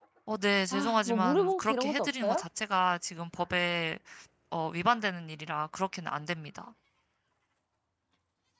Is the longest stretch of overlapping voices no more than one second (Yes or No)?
No